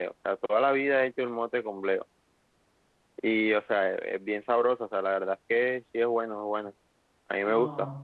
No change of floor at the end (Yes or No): Yes